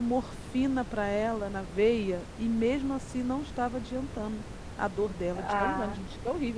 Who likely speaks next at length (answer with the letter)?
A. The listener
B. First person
A